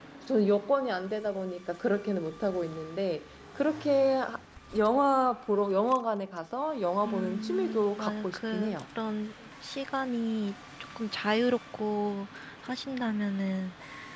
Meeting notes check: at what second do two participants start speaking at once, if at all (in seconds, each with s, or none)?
7.0 s